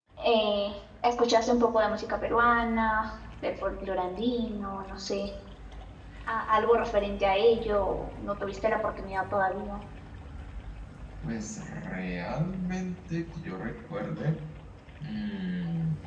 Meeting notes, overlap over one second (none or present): none